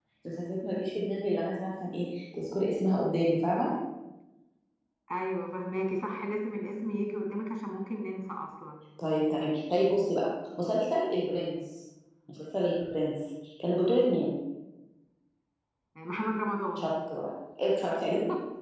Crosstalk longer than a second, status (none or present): none